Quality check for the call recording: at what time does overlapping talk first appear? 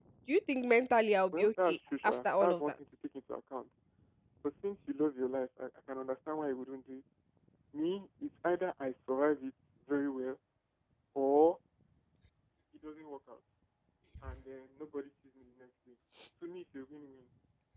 1.3 s

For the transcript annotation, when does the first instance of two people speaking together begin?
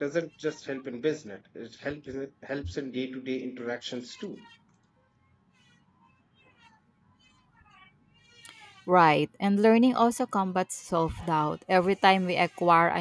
none

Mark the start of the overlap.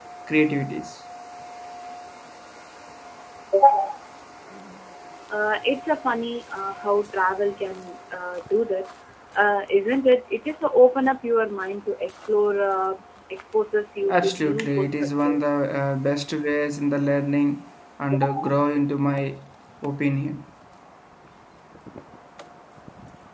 14.1 s

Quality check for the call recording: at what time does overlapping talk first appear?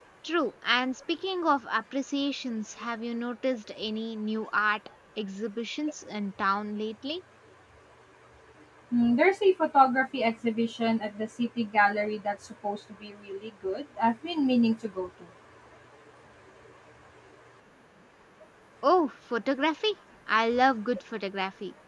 none

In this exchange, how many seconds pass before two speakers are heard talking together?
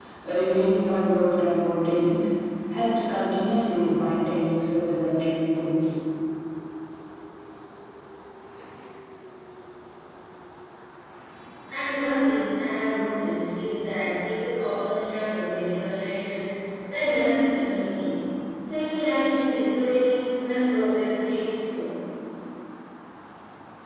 none

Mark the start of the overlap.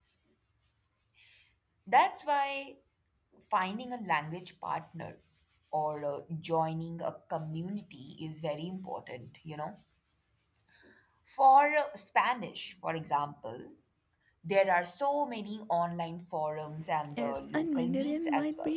17.2 s

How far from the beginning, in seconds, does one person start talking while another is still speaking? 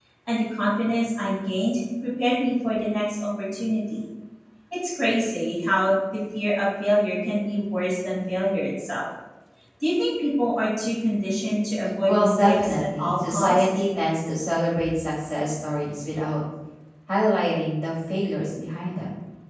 12.1 s

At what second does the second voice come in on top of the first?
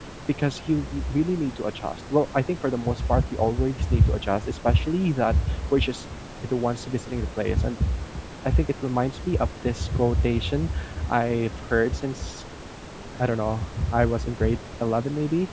none

